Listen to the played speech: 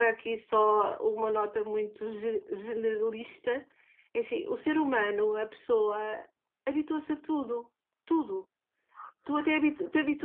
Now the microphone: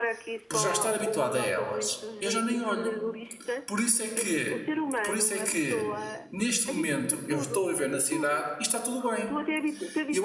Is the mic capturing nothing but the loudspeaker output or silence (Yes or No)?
No